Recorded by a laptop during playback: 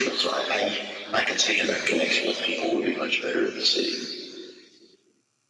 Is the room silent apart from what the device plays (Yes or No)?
Yes